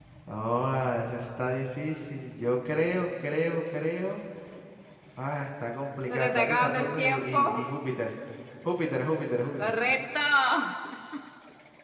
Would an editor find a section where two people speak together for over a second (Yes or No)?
Yes